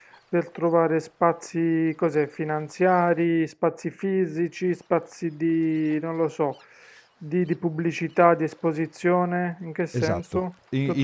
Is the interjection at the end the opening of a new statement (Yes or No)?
Yes